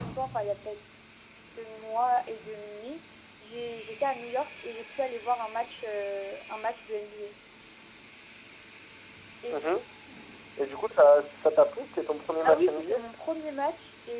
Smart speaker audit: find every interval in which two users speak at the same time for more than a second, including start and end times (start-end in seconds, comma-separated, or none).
none